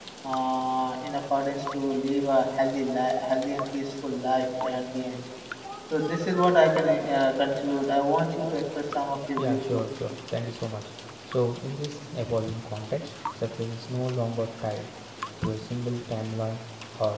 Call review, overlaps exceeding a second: none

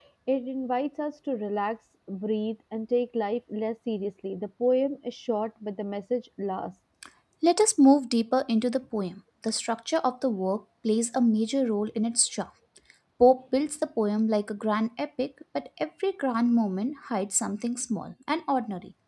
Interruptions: none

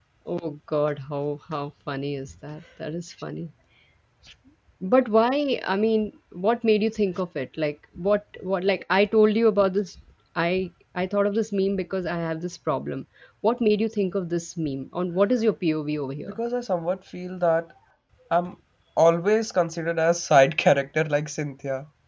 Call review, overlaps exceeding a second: none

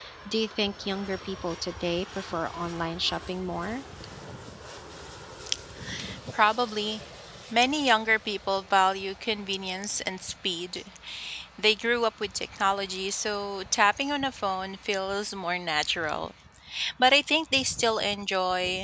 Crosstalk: none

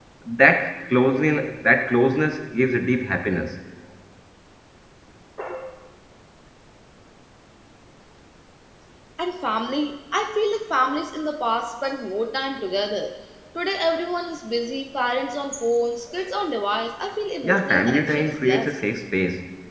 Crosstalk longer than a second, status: present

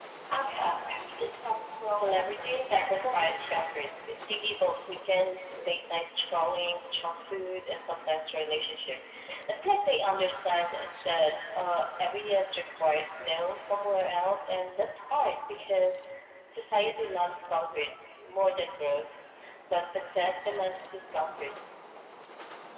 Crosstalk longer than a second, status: present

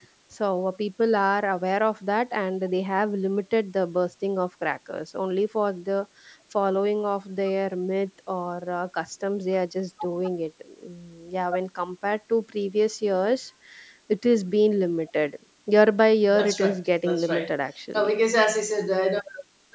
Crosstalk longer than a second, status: present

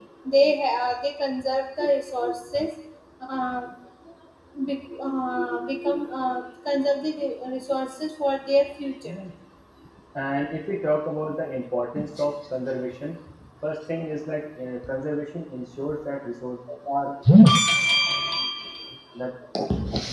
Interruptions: none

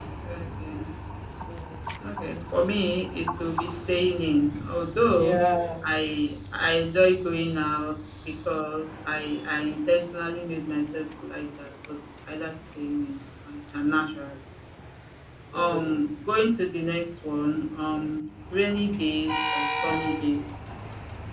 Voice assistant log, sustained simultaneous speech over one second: none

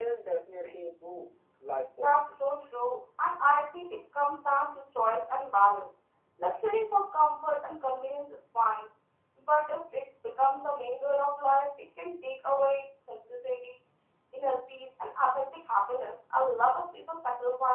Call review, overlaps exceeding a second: none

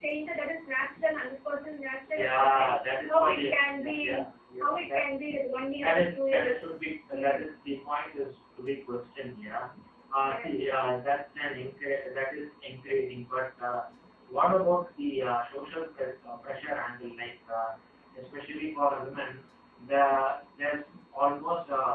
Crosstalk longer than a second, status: present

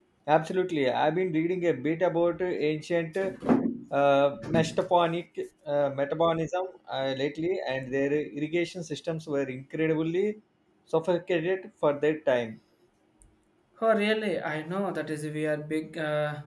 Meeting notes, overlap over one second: none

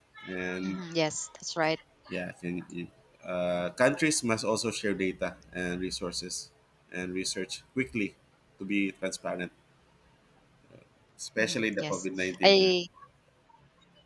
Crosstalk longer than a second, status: present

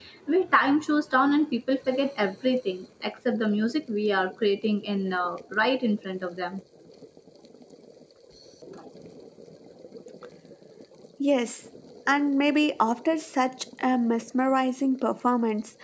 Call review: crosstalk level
none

